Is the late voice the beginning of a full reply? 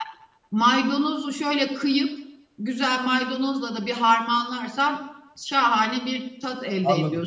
Yes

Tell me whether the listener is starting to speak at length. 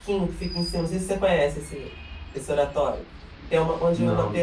No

